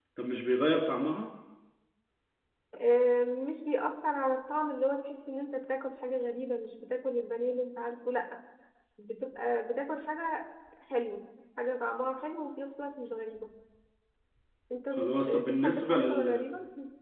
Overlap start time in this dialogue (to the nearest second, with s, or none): 15 s